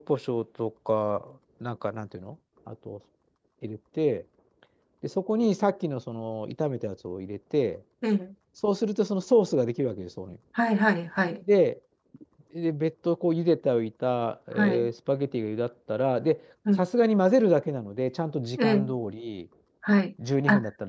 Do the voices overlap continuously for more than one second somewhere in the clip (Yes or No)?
No